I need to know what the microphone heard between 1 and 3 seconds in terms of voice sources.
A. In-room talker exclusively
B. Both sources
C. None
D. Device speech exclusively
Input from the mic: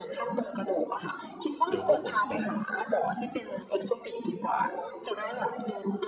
B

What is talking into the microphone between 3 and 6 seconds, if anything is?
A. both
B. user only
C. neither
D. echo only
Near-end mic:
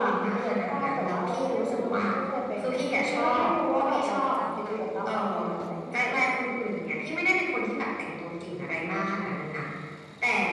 A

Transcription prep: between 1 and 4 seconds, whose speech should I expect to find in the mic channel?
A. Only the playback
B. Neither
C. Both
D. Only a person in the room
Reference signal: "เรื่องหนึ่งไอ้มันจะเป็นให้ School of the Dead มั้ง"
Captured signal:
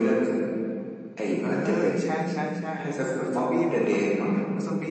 C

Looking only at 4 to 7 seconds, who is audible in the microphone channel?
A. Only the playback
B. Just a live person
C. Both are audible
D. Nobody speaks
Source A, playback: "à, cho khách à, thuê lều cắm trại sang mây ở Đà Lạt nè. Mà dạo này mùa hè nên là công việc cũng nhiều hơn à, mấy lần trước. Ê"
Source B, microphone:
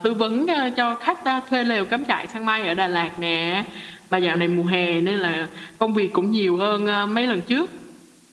A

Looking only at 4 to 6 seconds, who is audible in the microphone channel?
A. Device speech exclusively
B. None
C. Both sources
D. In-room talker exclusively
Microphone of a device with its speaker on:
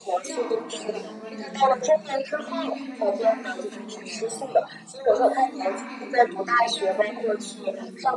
C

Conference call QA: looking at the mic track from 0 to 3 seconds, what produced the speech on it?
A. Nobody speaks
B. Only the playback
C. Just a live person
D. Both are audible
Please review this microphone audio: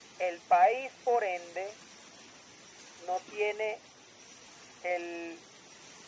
B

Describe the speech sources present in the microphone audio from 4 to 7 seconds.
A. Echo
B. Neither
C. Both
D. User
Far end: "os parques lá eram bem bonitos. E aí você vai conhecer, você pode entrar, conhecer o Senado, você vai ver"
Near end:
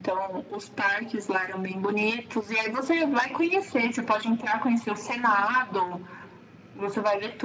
A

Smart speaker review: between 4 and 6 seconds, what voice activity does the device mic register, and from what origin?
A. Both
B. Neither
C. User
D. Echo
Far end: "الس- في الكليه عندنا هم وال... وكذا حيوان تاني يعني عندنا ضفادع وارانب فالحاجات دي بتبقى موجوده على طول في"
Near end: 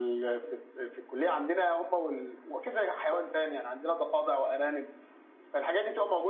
D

